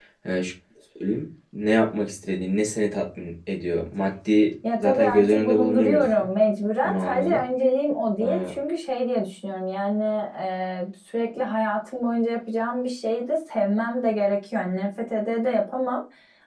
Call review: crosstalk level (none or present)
present